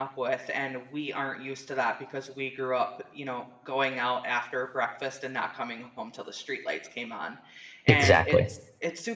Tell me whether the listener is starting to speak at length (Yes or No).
No